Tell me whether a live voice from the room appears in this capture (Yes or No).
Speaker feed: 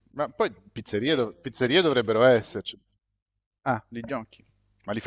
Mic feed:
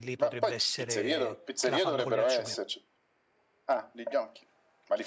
Yes